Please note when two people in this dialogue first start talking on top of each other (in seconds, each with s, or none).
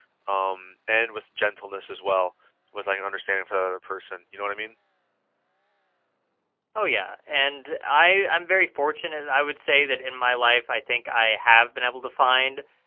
none